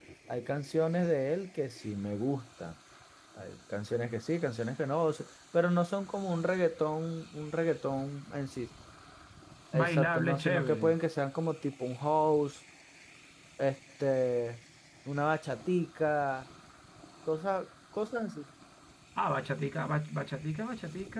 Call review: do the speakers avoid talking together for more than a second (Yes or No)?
No